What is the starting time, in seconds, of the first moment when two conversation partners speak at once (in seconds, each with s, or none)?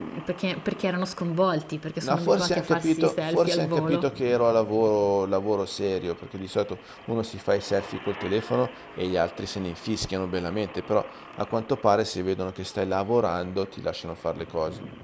2.0 s